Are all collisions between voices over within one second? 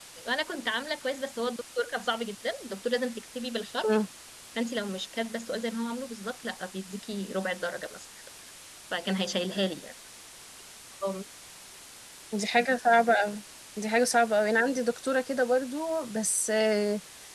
Yes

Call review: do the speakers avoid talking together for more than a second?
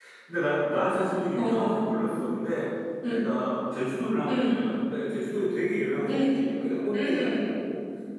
Yes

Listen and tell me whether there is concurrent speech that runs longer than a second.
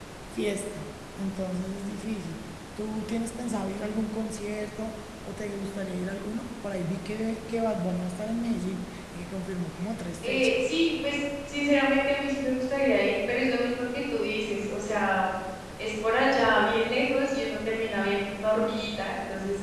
No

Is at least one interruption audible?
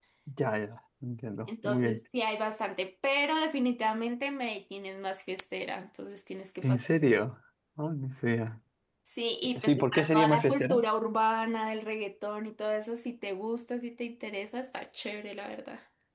Yes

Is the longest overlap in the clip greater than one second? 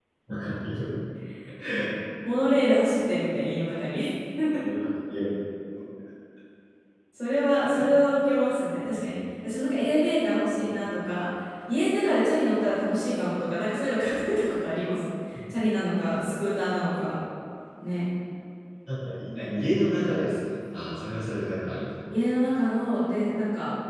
No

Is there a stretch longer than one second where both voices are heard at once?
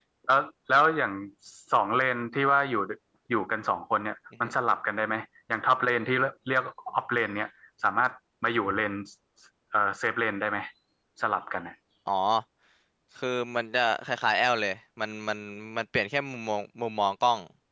No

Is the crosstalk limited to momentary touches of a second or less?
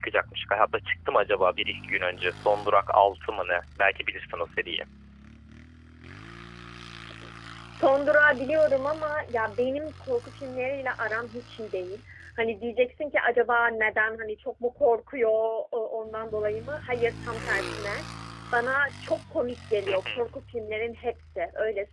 Yes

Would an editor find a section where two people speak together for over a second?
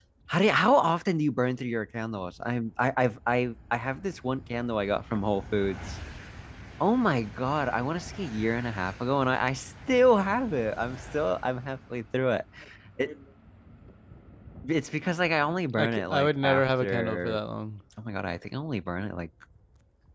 Yes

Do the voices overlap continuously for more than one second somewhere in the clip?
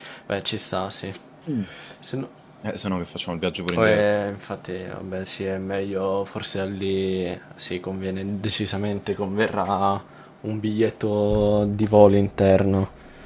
No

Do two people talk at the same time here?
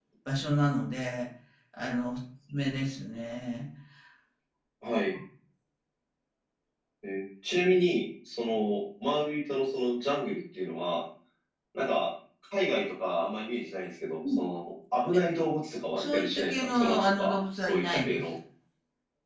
Yes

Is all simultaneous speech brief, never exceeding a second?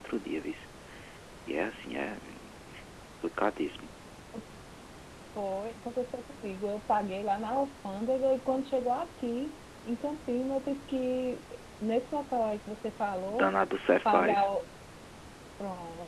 Yes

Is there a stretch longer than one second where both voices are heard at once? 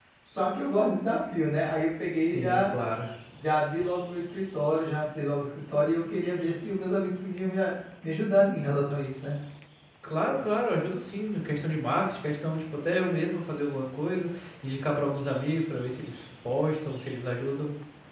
No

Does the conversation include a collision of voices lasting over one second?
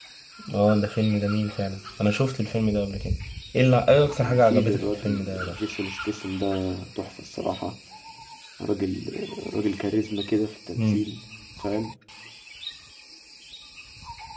Yes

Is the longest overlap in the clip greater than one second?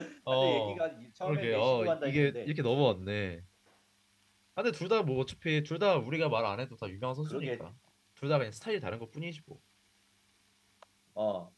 Yes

